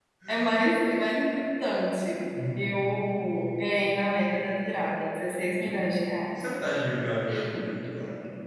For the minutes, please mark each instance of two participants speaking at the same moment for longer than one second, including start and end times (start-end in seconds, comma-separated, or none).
none